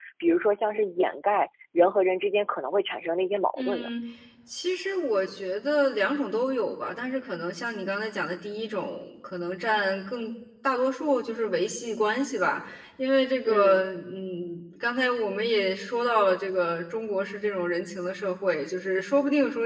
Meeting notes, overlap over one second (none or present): none